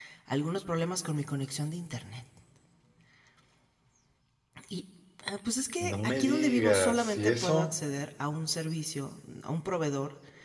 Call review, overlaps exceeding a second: present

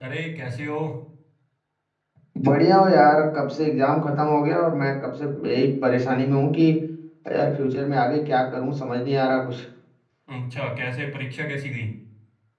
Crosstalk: none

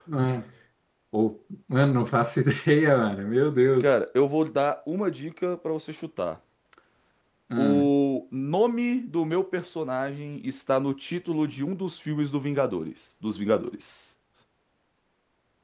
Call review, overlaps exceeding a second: none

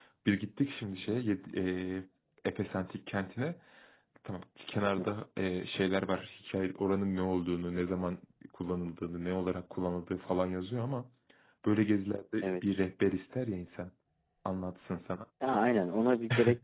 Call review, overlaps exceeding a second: none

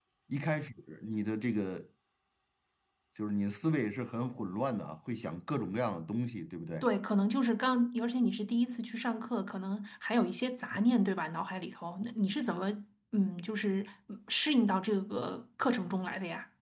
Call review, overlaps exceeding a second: none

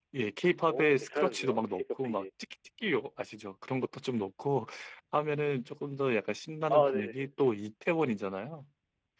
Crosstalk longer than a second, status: present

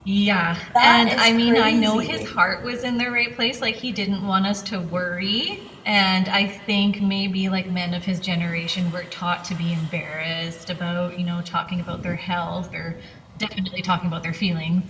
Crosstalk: present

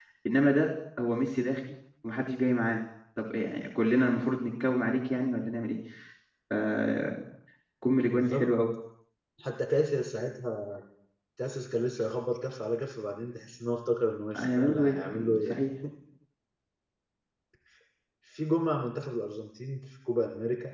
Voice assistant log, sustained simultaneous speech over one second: present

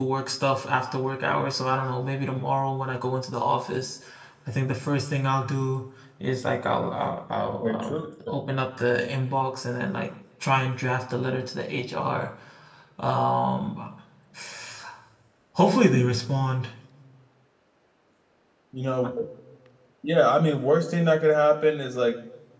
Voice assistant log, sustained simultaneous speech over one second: none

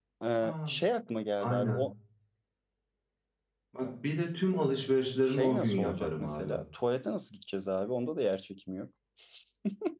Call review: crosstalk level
present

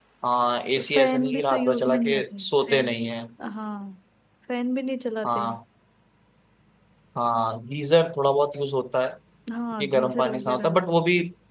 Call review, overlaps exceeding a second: present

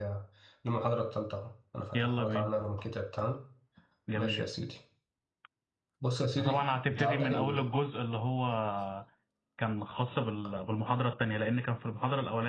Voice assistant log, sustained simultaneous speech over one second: present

